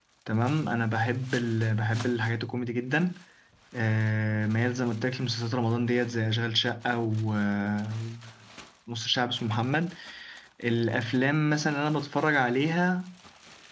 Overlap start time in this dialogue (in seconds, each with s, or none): none